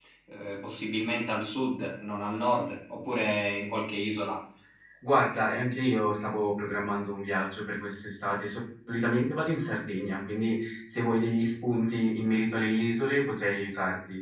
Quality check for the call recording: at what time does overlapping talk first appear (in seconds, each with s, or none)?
none